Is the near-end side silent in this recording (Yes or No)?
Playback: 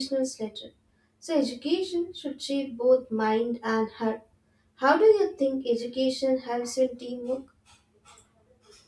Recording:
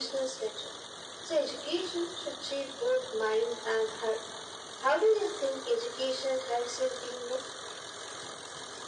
Yes